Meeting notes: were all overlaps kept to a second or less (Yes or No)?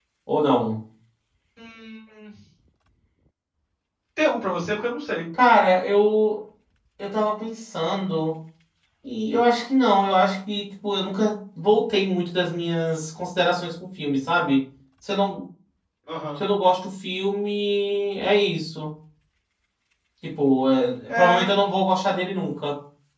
Yes